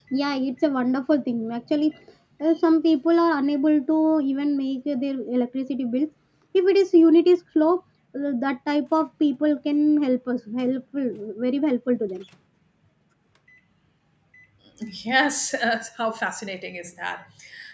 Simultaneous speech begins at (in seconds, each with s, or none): none